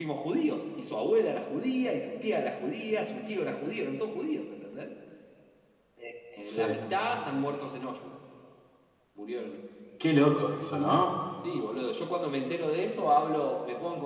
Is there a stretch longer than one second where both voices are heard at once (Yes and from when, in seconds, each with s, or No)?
No